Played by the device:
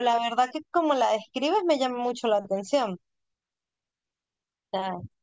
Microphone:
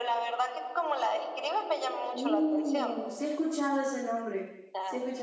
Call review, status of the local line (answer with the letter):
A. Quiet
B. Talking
B